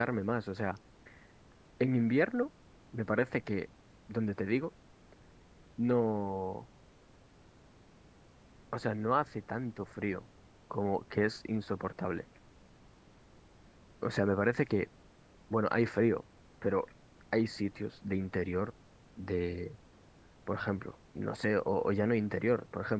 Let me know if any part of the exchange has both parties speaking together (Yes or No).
No